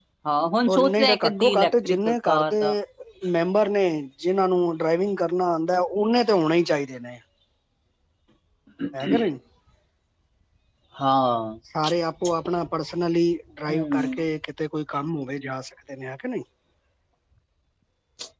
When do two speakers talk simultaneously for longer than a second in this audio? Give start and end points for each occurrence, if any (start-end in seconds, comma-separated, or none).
0.7-2.6